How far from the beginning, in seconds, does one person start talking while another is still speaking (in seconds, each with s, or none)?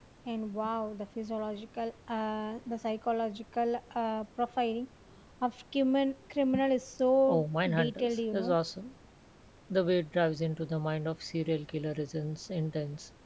7.3 s